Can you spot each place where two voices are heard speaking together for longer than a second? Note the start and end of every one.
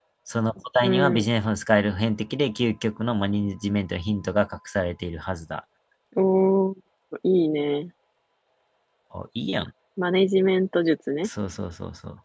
none

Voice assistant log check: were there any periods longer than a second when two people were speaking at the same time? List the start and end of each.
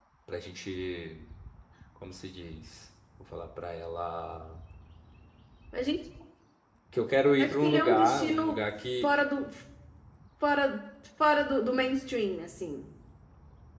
7.4-8.6

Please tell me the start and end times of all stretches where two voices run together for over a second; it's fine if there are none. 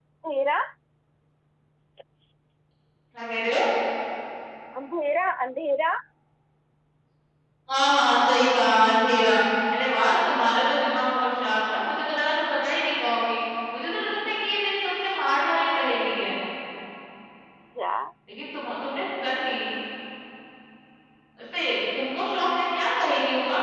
none

